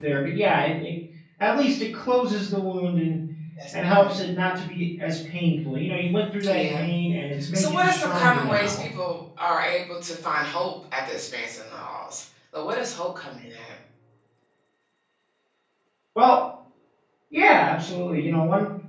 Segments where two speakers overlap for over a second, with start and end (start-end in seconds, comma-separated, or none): 7.5-8.8